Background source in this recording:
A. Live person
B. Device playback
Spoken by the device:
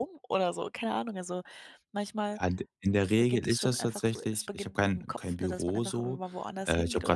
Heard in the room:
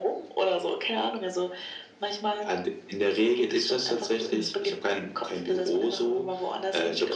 A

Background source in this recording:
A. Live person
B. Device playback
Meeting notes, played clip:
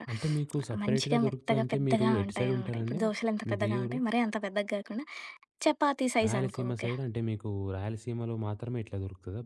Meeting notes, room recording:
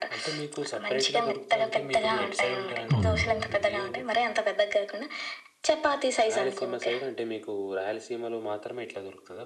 B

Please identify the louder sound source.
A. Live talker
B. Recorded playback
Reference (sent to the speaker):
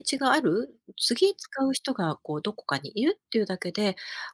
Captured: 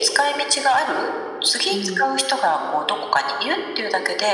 B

